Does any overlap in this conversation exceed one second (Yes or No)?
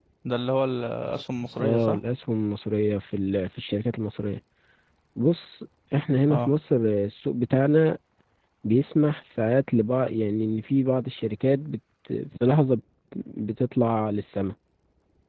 No